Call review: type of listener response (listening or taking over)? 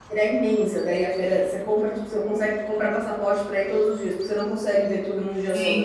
taking over